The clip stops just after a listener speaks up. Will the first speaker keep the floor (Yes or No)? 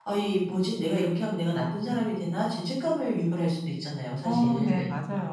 No